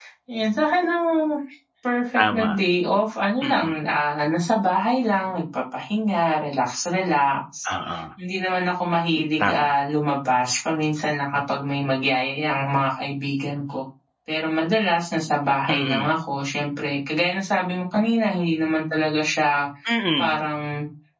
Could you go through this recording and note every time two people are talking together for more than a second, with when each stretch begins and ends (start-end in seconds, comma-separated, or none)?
none